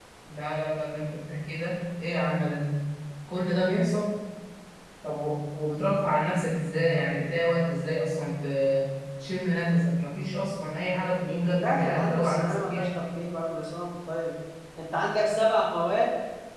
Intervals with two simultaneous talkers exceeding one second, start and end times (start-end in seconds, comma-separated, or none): 11.6-12.9